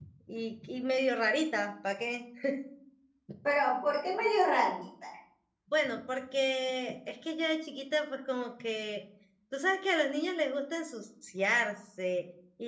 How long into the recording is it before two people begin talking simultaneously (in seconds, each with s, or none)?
none